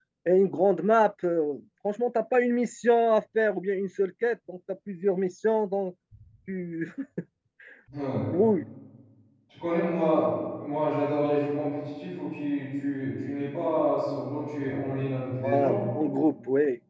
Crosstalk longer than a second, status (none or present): none